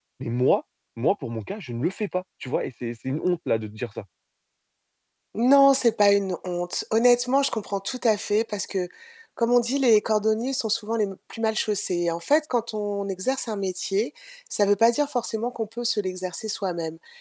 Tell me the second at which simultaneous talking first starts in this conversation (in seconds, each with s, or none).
none